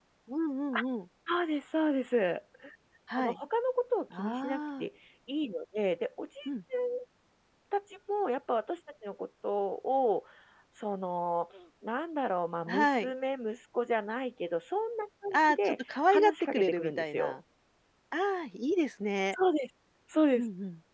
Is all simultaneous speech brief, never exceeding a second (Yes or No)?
No